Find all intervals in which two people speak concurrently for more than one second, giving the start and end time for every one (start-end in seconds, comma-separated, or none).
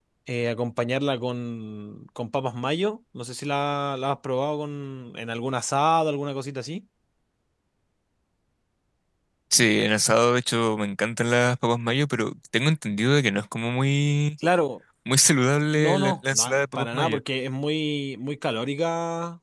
15.7-17.2